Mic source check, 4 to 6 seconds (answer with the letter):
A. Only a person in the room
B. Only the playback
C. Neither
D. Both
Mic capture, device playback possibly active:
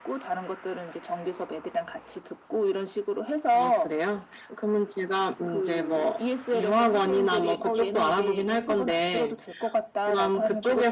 B